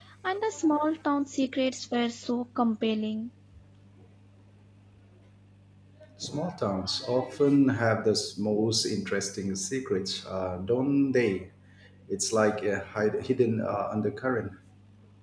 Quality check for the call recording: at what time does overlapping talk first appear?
none

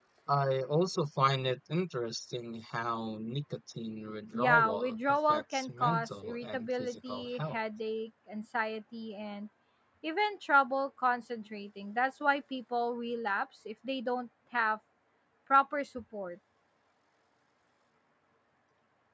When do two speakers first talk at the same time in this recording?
4.3 s

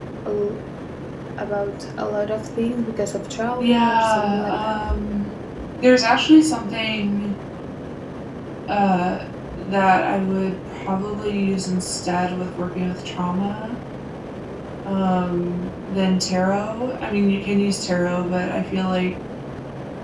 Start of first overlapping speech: 3.6 s

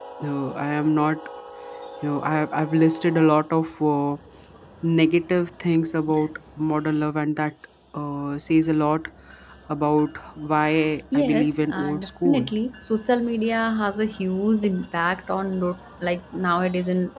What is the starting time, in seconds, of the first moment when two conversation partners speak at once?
11.1 s

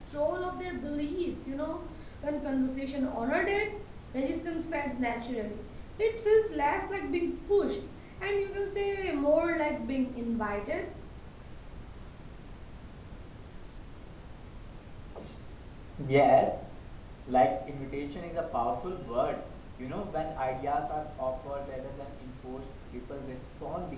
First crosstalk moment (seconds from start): none

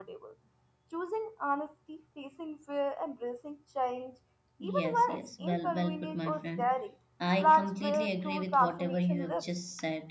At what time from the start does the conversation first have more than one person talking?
4.6 s

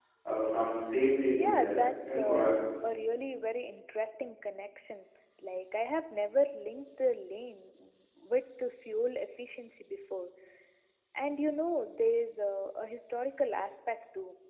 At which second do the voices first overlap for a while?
1.4 s

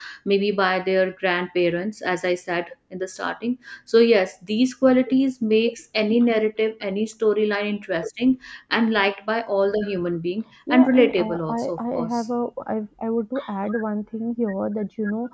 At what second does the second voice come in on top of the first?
10.7 s

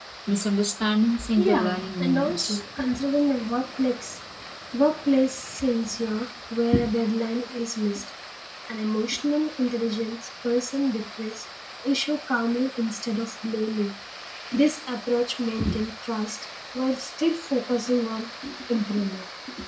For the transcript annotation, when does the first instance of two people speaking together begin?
1.4 s

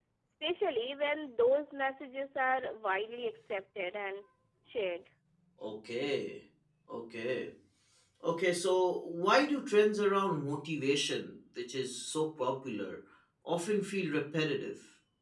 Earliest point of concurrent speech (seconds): none

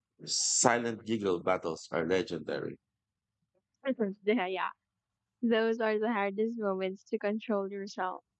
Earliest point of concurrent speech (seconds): none

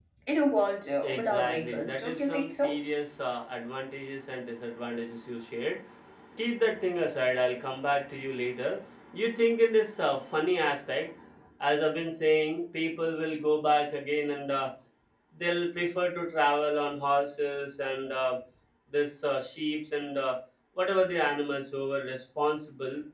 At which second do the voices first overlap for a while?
1.0 s

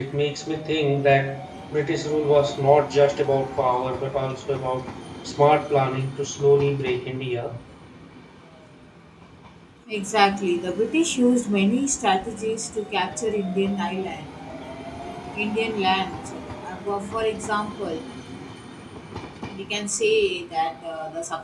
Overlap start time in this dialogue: none

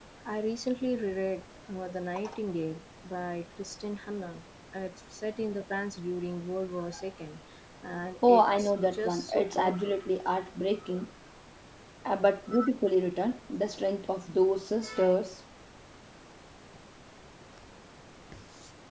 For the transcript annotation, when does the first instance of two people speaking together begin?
8.3 s

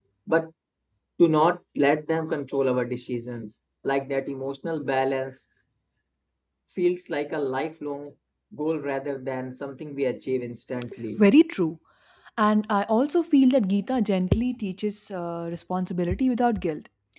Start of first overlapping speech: none

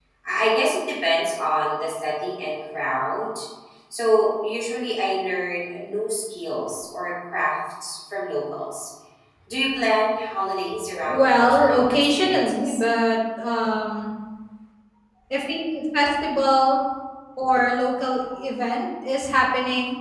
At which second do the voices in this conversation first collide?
11.0 s

